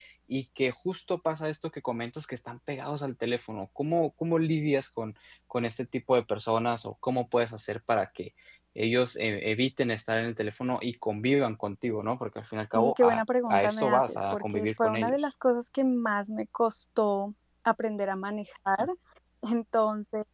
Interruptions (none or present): present